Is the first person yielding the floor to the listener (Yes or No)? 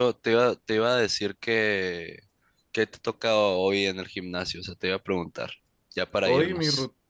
Yes